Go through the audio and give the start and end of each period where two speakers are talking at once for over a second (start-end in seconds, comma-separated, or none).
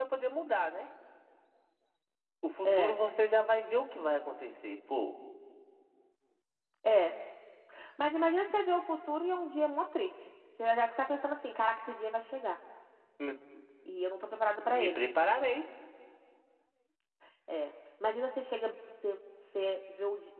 none